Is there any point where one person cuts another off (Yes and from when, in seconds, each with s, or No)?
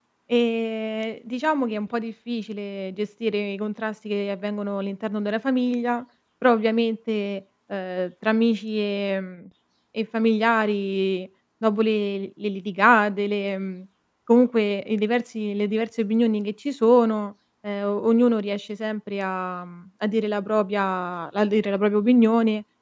No